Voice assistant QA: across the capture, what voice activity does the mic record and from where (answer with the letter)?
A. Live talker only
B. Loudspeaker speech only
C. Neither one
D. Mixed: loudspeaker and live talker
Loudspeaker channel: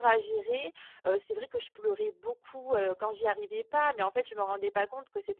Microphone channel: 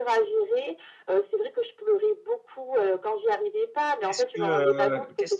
D